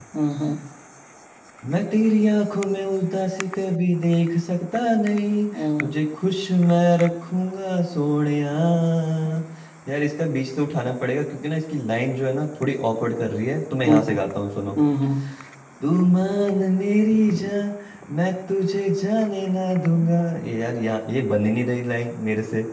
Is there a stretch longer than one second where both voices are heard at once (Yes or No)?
No